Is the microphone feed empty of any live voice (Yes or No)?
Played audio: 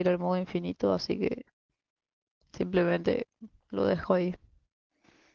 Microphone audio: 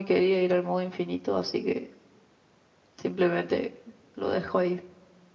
Yes